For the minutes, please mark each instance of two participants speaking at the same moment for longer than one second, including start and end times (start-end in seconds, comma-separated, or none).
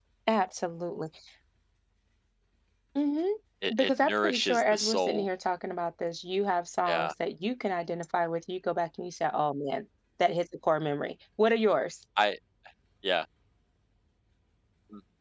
3.8-5.2